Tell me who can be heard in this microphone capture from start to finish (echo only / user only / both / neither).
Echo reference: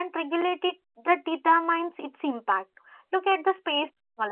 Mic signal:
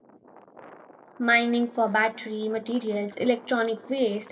user only